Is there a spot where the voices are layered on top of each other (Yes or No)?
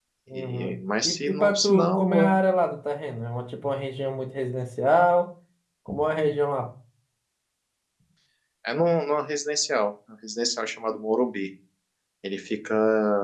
Yes